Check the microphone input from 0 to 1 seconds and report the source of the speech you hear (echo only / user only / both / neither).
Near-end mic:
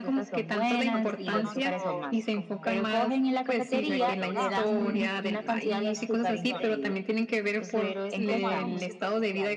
both